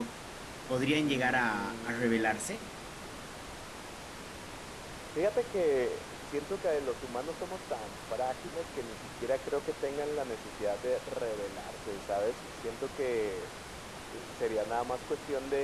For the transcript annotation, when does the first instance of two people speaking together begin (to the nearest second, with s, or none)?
1 s